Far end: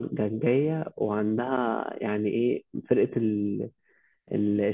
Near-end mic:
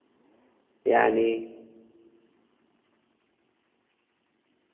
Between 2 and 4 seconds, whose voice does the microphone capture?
neither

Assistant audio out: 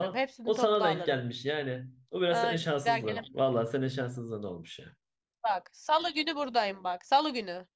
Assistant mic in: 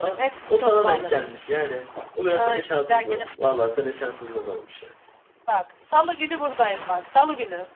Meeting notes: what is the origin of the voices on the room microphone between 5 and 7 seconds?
echo only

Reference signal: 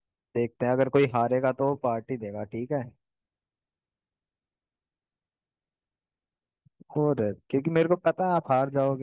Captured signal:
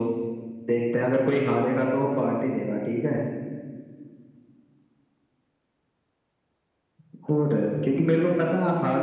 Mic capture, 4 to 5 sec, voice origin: neither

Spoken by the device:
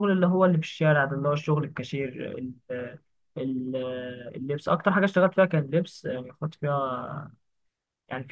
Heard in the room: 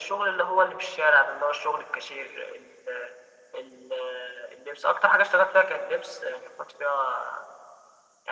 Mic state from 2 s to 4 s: echo only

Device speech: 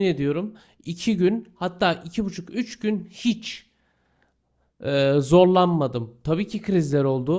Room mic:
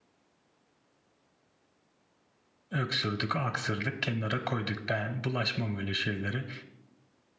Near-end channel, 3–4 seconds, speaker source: user only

